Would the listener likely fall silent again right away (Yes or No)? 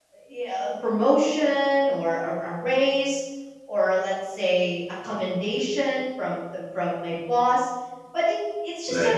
Yes